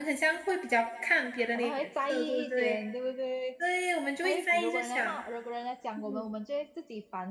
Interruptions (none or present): present